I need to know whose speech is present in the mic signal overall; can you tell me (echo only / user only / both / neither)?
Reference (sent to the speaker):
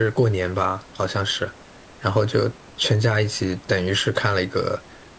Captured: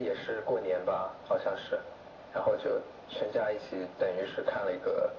echo only